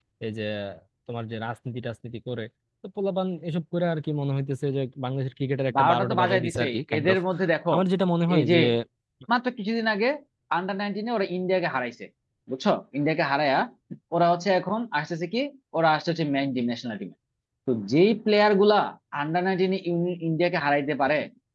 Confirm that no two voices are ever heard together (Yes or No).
No